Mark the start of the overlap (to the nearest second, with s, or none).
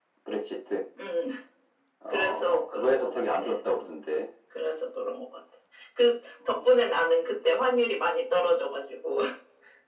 2 s